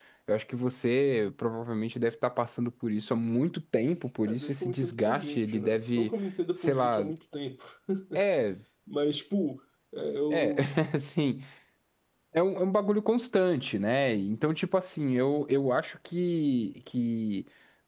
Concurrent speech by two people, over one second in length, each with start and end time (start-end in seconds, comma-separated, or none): 4.2-6.1